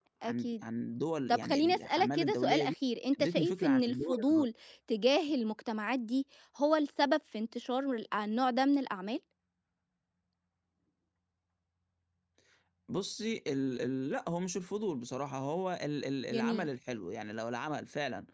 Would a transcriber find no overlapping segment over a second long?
No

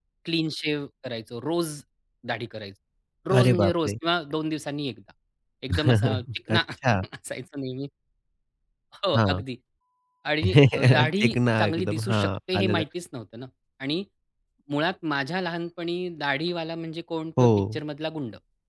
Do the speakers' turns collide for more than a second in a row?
Yes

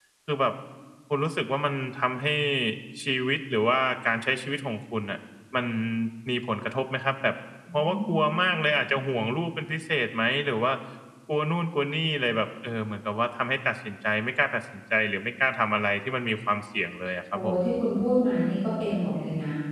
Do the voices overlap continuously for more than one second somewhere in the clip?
No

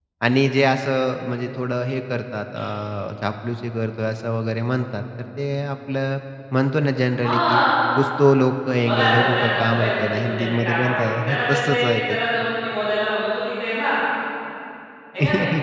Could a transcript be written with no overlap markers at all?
No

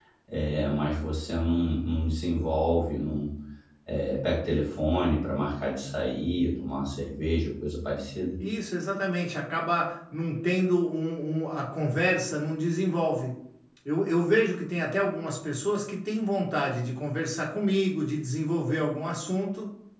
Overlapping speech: No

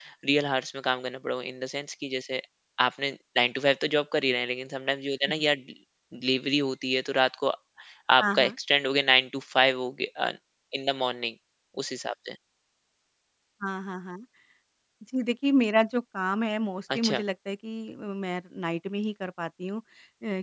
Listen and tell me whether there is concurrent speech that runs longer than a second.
No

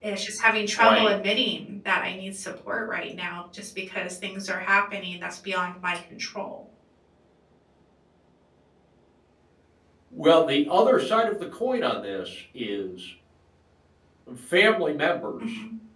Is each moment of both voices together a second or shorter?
Yes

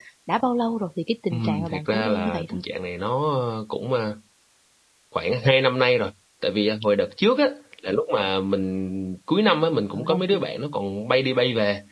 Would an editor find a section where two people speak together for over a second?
Yes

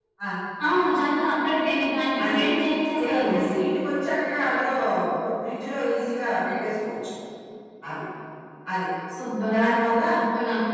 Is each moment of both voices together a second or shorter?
Yes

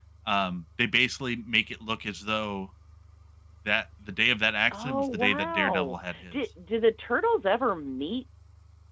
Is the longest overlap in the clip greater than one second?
Yes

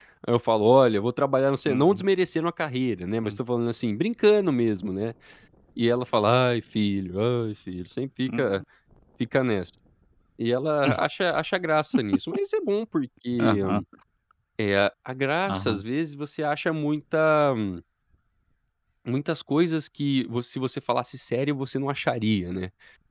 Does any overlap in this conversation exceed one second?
No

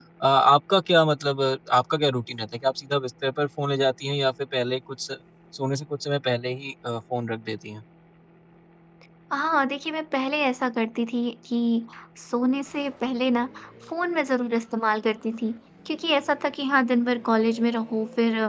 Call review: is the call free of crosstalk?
Yes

